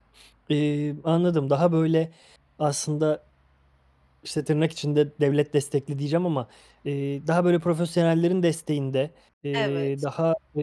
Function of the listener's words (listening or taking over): listening